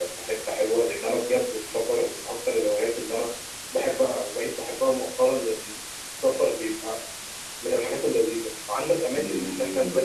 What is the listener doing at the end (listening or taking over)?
taking over